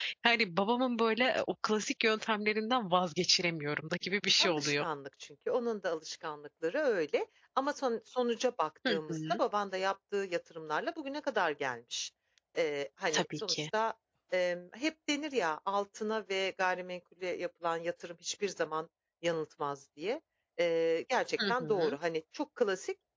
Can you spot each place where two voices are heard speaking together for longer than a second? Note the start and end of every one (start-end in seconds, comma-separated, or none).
none